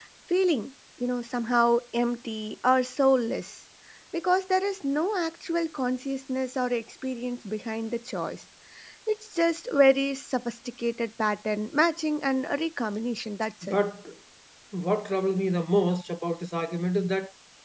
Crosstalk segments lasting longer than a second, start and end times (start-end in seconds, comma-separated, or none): none